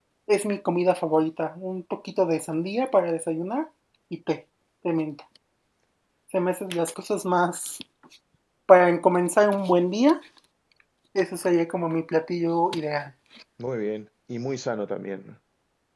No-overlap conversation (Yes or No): Yes